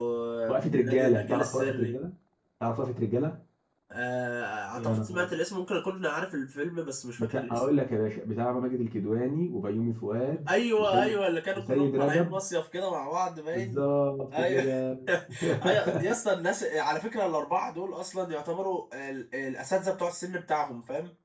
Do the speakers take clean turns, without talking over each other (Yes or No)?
No